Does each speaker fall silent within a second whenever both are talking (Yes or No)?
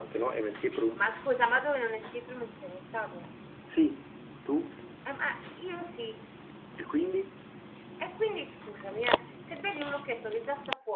Yes